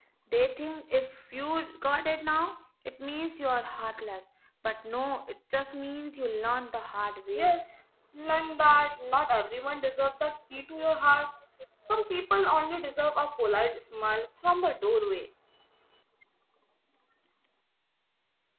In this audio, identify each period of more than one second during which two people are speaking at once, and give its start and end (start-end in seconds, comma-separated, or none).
none